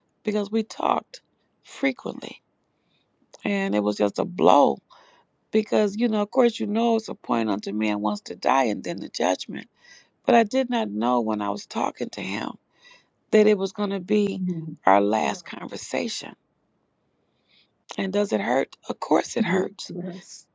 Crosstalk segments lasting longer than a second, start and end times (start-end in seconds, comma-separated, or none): none